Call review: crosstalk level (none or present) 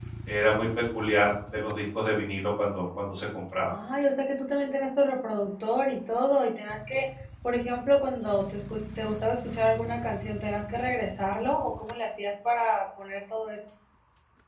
none